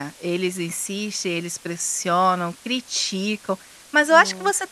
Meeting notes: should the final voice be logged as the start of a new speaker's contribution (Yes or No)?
No